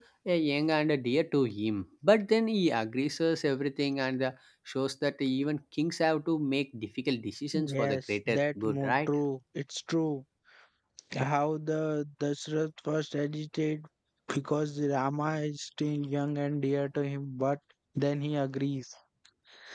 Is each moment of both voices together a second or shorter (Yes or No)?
No